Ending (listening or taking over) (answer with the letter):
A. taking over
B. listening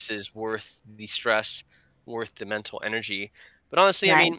B